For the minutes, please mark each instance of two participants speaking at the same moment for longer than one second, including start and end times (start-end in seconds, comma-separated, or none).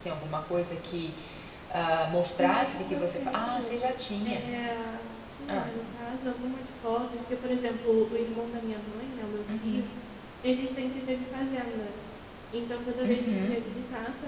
2.4-3.8